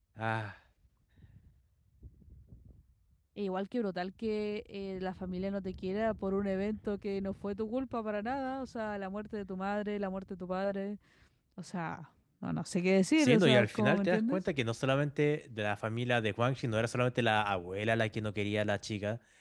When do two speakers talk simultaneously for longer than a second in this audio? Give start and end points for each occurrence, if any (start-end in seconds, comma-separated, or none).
13.2-14.4